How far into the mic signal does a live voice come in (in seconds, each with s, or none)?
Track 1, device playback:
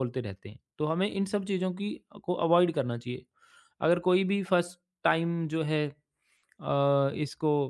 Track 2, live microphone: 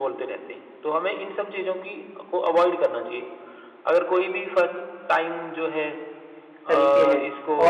6.7 s